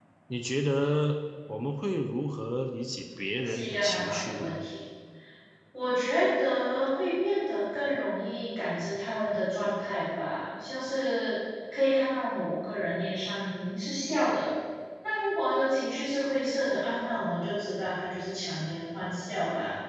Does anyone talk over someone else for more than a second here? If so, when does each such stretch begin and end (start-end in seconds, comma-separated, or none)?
3.4-4.7